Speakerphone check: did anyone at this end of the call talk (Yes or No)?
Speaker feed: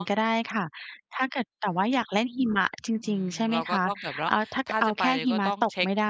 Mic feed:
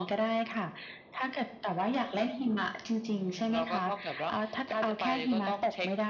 No